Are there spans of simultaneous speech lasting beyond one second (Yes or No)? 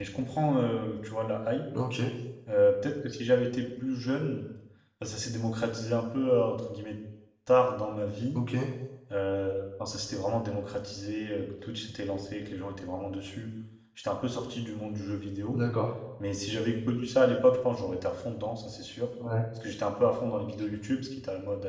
No